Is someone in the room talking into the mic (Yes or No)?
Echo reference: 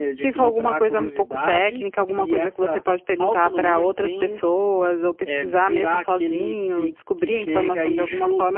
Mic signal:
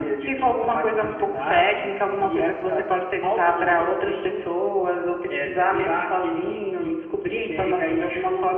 No